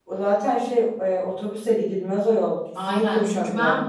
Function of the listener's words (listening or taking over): taking over